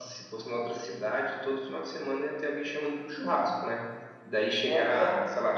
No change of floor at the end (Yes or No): Yes